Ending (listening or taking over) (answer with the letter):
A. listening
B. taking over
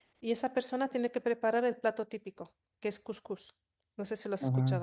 B